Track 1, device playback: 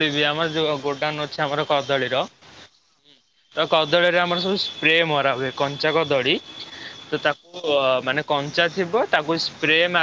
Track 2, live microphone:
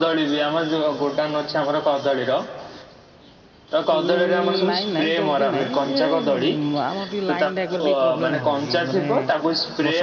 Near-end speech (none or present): present